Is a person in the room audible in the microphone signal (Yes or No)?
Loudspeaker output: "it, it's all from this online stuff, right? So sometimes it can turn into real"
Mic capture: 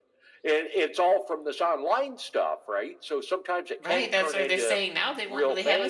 Yes